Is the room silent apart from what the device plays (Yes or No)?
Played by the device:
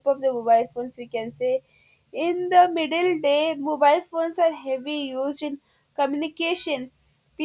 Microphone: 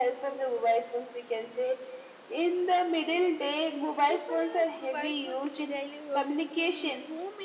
No